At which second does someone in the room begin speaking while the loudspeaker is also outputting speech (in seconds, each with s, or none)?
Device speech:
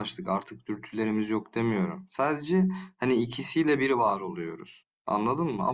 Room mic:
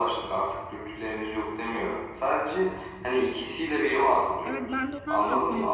4.4 s